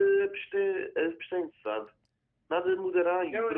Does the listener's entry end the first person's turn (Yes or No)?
Yes